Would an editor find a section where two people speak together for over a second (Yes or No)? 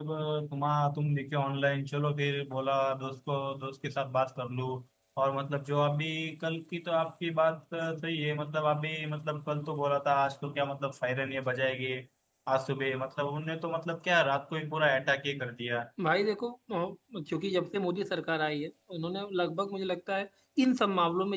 No